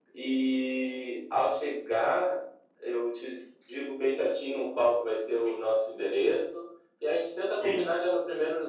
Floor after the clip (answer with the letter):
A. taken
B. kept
B